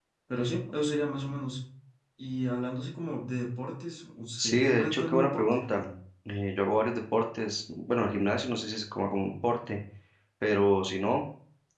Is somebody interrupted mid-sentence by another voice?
Yes, from 4.4 s

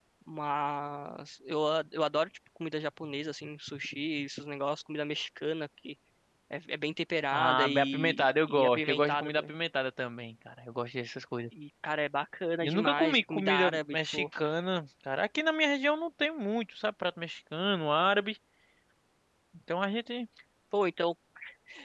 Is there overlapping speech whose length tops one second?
Yes, from 7.3 s

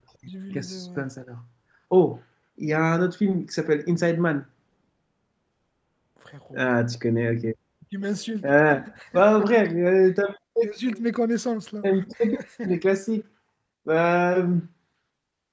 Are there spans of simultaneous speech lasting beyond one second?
No

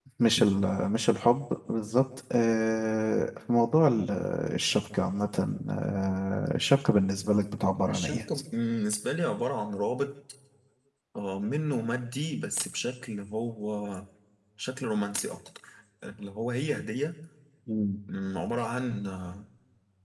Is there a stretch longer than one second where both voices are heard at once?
No

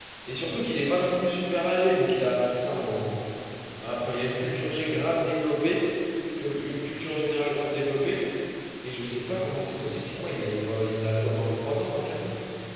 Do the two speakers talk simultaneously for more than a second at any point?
No

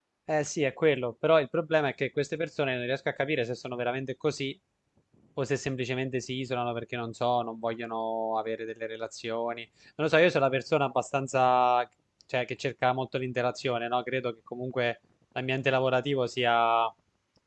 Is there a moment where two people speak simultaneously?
No

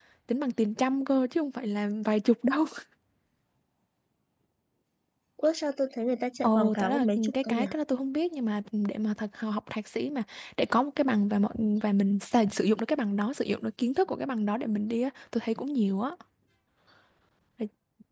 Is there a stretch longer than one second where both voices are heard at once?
Yes, from 6.4 s

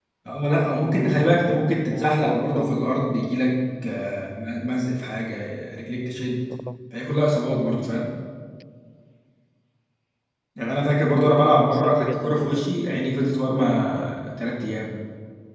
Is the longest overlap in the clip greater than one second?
Yes, from 1.2 s

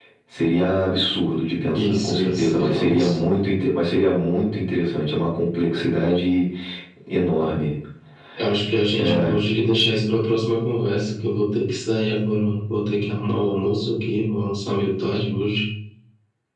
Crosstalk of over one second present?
Yes, from 1.7 s

